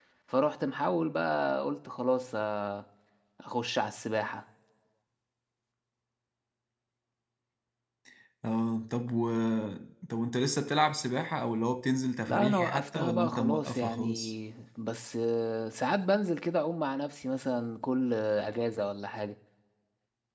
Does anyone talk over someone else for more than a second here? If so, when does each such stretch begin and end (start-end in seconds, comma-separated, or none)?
12.3-14.3